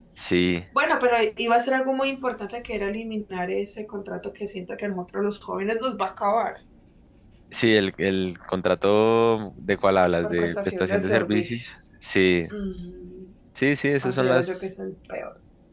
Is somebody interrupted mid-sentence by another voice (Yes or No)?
Yes